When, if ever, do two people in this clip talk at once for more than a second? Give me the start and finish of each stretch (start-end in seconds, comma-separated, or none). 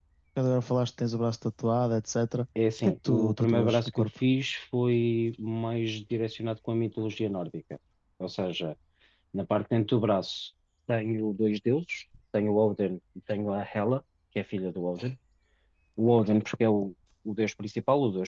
2.8-4.1